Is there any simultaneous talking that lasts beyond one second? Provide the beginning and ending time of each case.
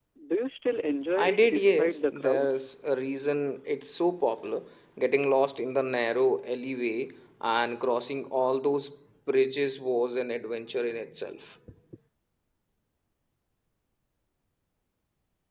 1.2-2.6

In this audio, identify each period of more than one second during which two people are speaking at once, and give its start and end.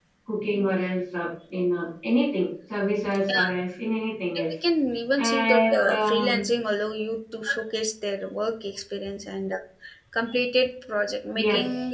5.2-6.4

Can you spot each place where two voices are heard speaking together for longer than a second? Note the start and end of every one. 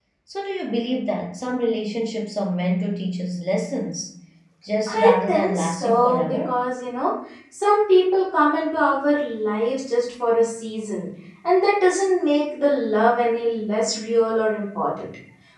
4.9-6.6

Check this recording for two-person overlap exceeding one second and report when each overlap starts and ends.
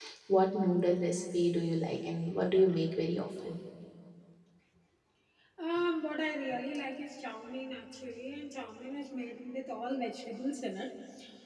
none

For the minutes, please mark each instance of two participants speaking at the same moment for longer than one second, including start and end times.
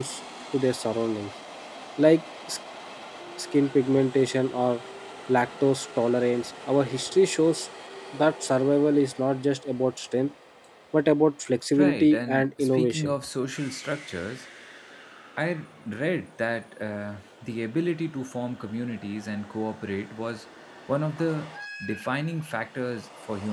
11.8-13.1

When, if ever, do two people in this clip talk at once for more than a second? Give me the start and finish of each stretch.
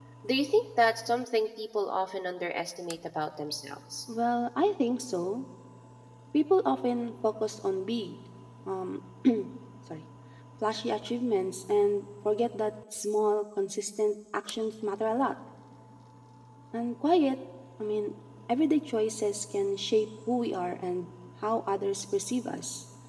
none

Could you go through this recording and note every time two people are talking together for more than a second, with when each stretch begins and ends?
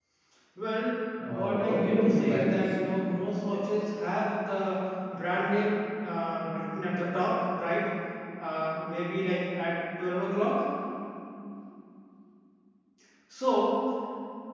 1.3-2.5

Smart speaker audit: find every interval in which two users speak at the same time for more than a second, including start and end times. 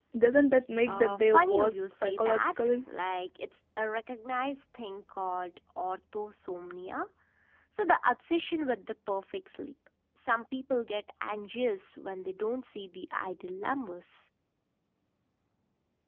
0.9-2.8

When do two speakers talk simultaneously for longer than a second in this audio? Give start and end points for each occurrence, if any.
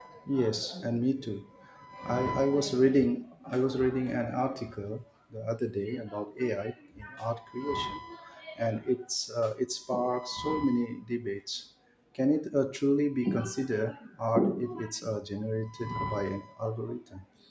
none

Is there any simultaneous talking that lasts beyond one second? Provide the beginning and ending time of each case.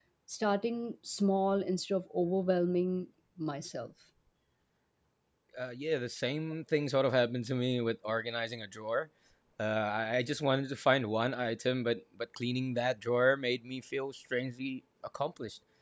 none

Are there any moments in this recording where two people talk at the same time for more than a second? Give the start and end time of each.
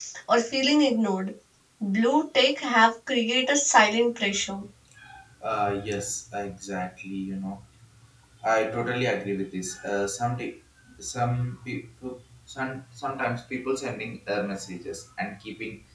none

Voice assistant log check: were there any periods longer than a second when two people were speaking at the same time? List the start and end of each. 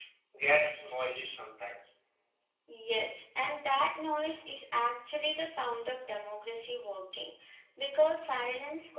none

